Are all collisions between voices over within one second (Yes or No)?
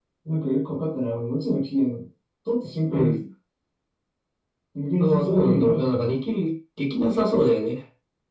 No